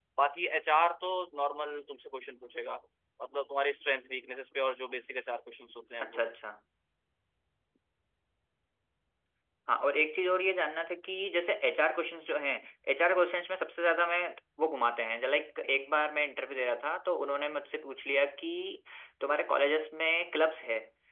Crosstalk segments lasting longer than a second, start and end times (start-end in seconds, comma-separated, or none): none